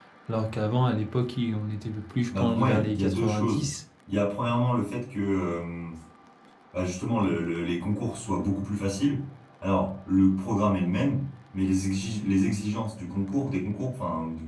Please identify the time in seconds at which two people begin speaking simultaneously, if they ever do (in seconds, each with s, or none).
2.3 s